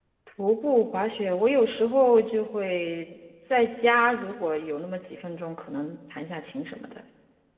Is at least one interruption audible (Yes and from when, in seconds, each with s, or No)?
No